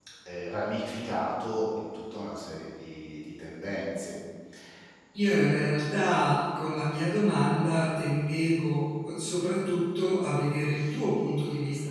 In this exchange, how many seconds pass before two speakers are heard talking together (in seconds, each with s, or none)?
none